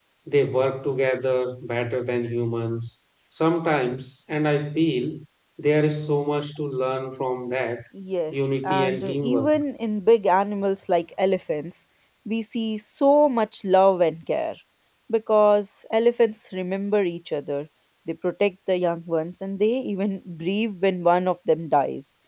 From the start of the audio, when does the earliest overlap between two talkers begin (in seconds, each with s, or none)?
8.3 s